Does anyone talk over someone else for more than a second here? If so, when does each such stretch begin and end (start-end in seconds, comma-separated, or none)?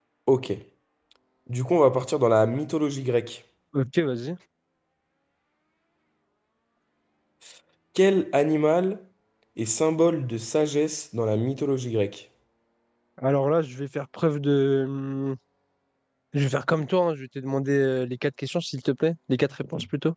none